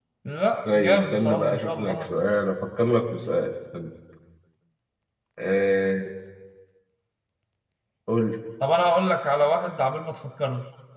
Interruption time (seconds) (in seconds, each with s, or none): 0.6 s